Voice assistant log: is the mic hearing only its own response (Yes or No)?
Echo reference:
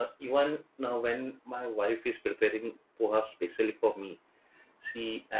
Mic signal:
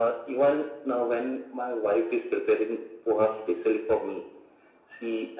Yes